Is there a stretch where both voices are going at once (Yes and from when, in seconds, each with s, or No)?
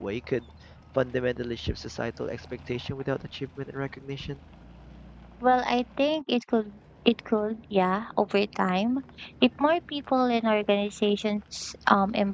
No